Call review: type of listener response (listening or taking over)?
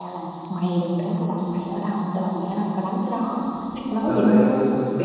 taking over